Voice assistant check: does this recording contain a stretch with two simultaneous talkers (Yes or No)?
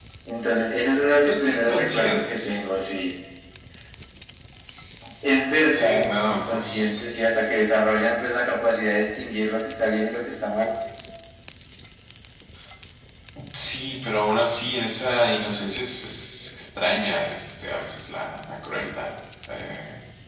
Yes